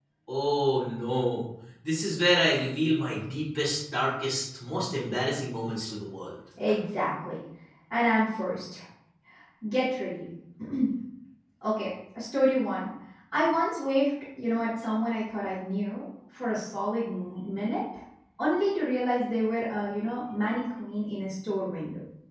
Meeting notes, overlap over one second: none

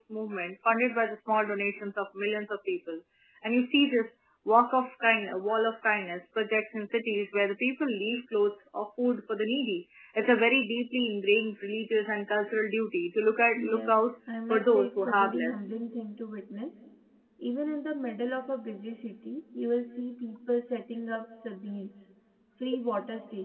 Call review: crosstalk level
present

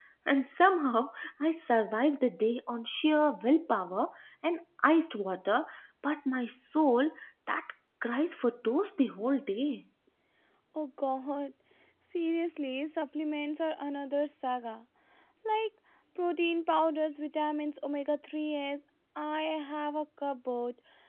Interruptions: none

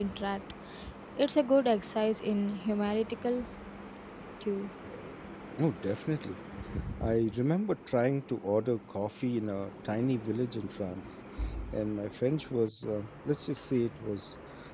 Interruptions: none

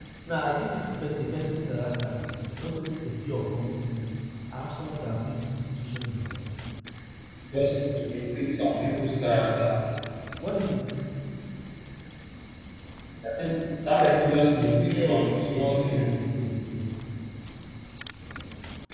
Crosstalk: present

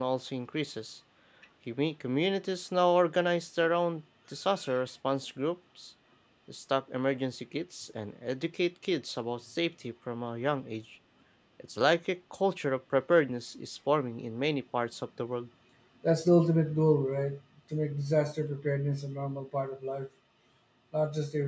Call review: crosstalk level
none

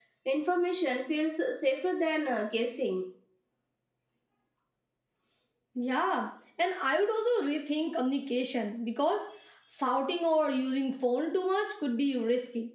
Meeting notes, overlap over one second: none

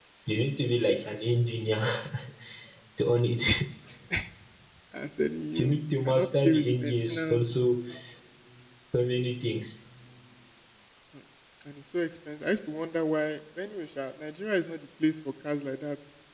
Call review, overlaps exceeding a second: present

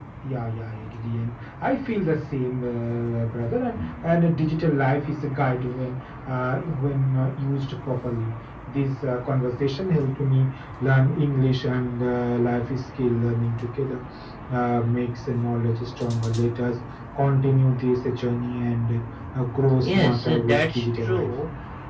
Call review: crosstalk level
present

